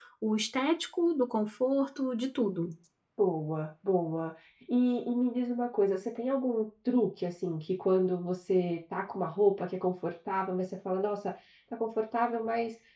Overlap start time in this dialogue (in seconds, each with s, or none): none